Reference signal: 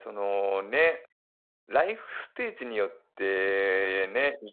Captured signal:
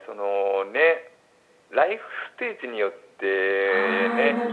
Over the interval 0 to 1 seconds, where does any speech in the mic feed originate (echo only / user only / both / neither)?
echo only